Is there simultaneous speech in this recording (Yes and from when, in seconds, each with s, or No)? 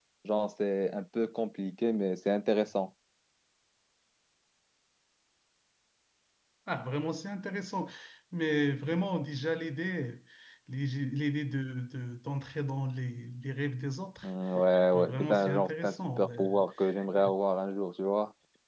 Yes, from 14.9 s